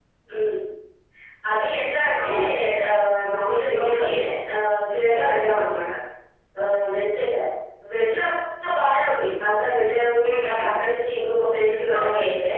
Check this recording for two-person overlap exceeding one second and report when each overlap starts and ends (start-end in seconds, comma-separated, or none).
none